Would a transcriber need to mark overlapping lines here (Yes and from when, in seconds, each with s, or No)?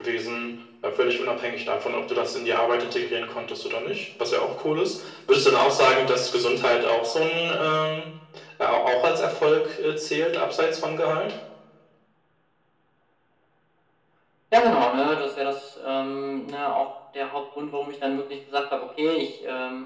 No